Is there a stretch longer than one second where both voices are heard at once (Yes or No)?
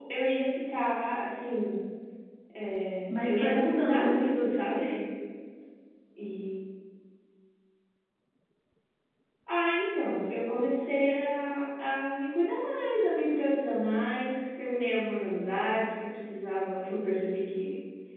Yes